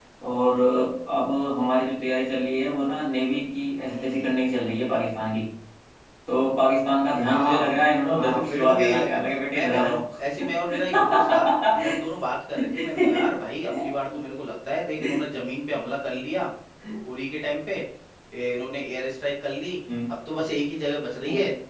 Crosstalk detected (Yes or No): Yes